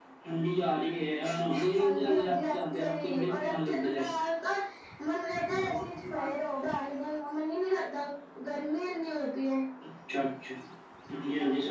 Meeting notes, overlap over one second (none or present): present